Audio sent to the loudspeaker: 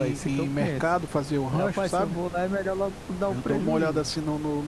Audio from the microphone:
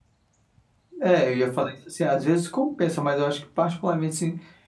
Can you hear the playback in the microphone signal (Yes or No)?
No